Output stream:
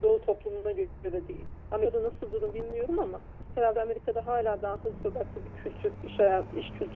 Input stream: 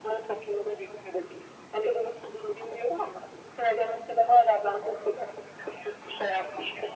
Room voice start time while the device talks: none

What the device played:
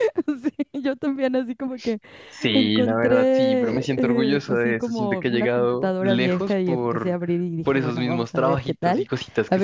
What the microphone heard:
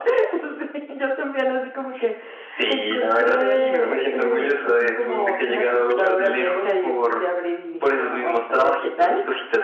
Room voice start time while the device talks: 3 s

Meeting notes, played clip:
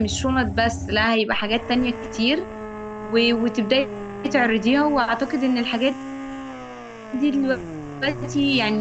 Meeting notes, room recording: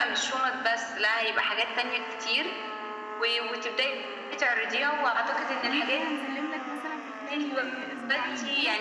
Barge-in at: 6 s

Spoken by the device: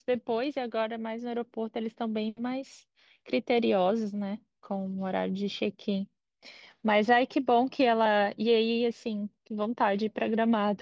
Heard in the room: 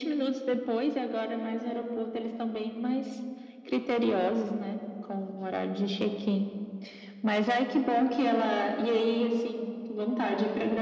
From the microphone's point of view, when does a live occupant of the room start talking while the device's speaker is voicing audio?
none

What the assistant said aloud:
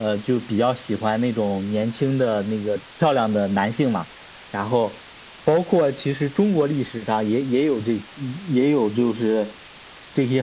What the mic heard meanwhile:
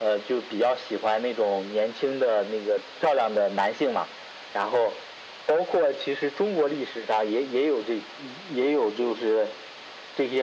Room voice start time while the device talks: none

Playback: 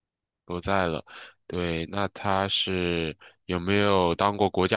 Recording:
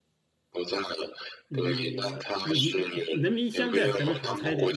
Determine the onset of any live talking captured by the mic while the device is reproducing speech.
1 s

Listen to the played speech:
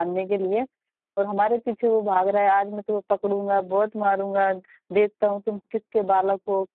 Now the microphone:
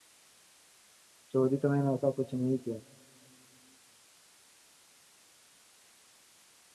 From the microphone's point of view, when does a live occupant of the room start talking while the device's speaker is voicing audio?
1 s

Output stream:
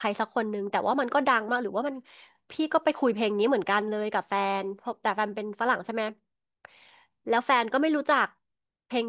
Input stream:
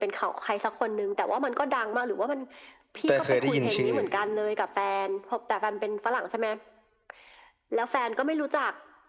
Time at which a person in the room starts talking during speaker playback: 3 s

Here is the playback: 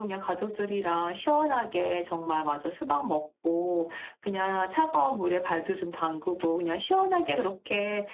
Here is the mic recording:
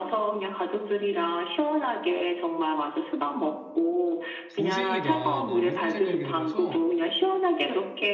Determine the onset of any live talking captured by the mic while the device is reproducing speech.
5 s

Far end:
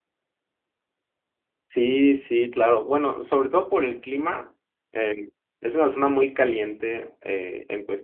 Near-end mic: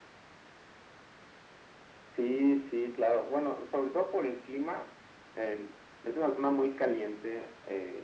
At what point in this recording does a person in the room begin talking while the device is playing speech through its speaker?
none

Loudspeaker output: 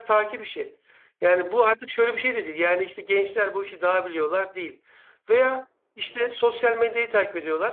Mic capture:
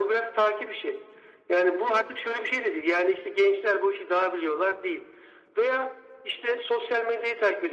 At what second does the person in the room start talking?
none

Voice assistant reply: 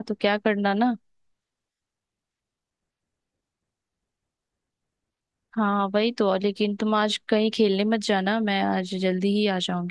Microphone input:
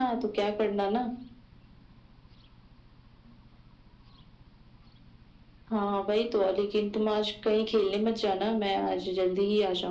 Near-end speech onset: none

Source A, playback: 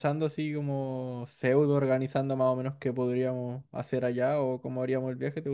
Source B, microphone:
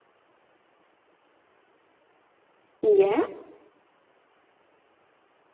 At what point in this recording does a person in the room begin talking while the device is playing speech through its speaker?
3 s

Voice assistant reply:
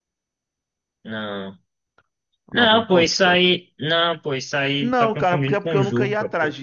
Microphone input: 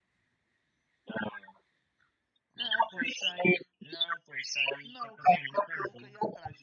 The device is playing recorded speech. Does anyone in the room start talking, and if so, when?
none

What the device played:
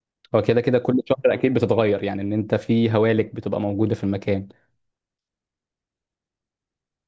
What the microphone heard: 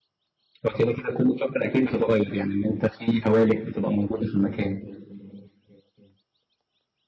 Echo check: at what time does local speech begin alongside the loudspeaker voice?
none

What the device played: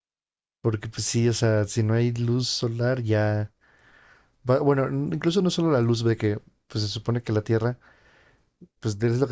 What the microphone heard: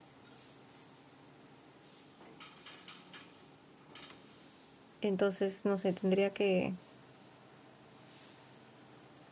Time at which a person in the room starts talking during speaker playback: 5 s

